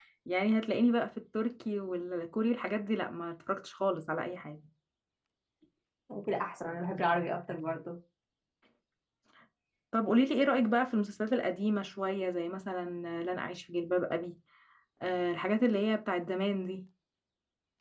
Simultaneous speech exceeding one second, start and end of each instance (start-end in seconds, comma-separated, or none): none